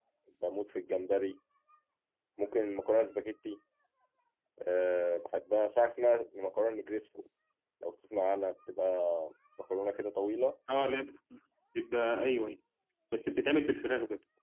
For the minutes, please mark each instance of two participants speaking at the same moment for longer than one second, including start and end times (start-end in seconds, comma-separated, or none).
none